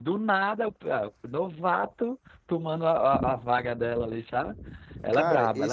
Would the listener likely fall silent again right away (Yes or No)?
No